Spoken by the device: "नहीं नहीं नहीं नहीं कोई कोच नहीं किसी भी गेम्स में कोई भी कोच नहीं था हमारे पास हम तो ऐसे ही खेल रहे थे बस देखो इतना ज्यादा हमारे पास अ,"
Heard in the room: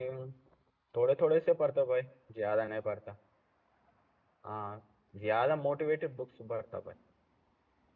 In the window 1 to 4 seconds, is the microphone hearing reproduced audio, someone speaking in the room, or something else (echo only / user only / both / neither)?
user only